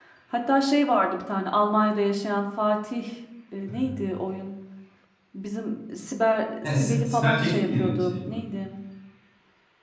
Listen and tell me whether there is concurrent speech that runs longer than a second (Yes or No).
Yes